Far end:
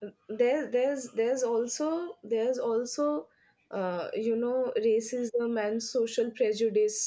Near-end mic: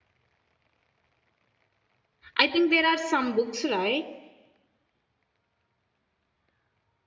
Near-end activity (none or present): present